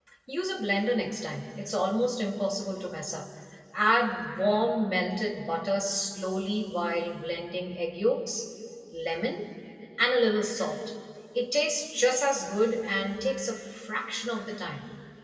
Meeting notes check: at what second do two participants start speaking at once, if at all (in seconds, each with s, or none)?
none